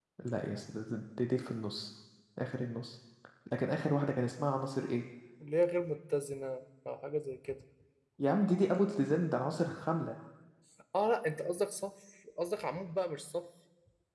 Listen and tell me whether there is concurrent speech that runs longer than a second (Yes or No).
No